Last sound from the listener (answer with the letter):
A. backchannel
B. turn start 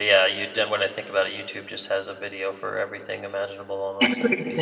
B